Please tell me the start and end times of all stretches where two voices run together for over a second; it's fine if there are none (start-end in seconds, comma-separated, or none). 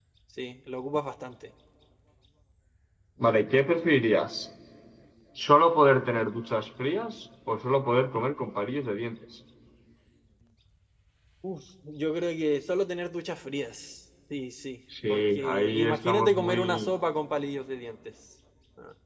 15.1-16.9